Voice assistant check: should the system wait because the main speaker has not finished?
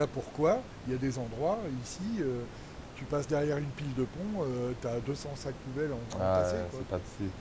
No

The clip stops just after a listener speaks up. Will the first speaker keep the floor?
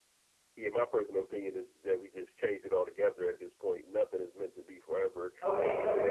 No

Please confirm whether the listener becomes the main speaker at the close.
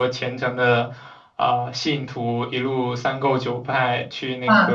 No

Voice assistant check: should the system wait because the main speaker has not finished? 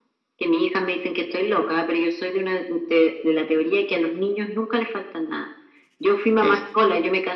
Yes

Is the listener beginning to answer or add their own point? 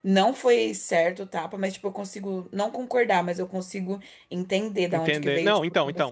Yes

